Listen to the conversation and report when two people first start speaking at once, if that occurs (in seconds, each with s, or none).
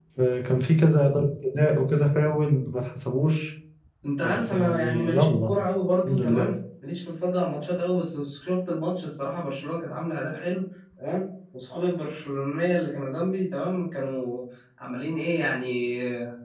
4.2 s